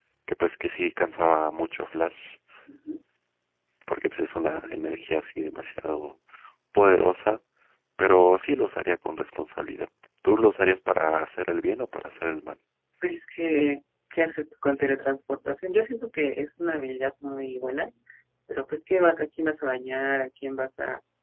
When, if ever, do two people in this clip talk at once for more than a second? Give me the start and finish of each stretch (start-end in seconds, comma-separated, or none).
none